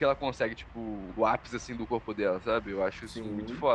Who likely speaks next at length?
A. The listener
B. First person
B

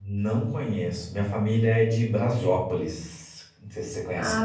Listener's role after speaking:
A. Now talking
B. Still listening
A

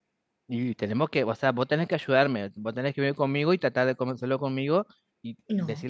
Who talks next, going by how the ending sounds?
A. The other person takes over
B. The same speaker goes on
B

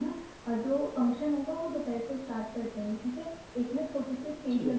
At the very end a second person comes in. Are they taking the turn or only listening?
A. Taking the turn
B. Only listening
B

